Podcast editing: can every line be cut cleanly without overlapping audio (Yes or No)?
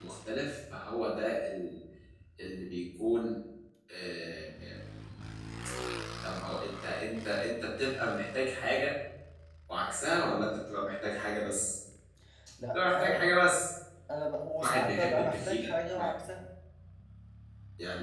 No